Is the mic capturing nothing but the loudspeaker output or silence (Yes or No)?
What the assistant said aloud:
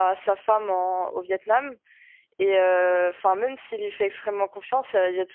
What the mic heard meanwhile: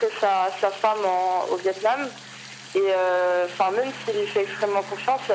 Yes